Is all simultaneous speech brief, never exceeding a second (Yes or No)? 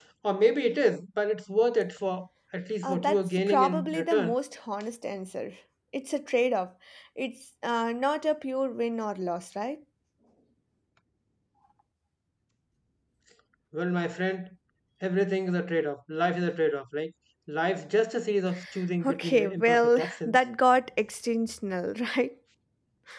No